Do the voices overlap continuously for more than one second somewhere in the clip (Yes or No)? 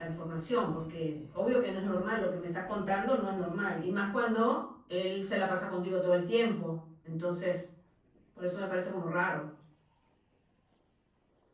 No